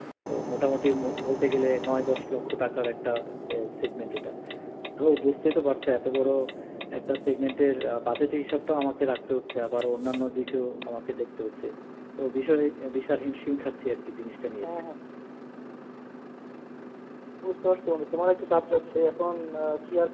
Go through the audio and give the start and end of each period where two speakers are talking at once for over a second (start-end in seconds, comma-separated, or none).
none